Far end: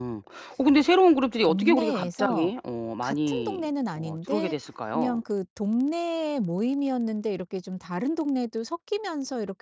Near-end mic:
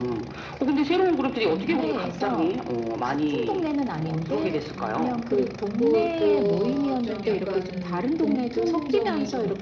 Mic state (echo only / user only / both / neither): both